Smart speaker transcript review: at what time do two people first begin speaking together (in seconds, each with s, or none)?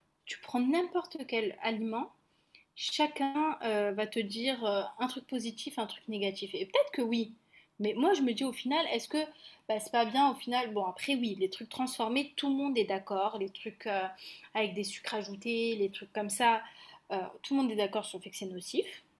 none